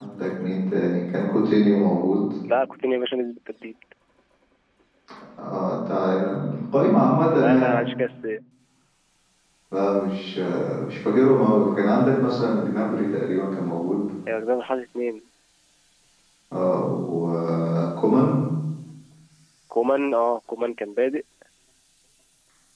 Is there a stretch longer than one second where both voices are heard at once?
No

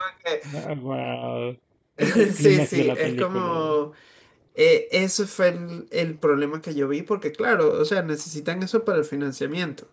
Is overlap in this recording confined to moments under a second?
No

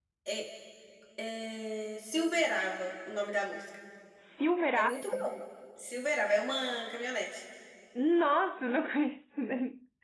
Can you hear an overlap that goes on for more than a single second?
No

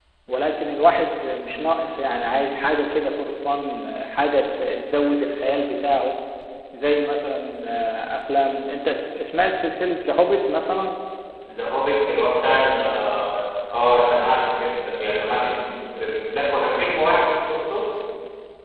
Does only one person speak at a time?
Yes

